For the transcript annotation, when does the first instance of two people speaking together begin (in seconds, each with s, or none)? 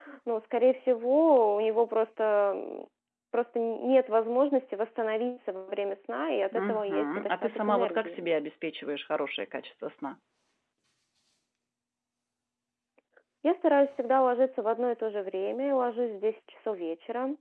6.5 s